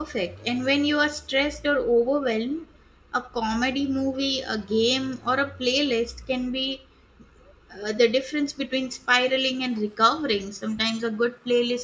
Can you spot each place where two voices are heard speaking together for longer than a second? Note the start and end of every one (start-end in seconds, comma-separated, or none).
none